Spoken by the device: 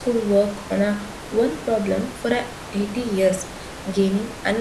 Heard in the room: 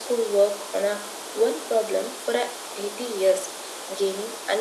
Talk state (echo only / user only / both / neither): echo only